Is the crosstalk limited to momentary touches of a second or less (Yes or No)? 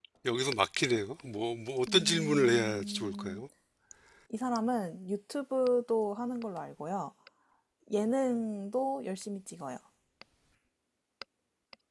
No